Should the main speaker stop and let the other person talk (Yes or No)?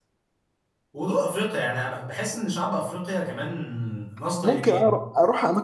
Yes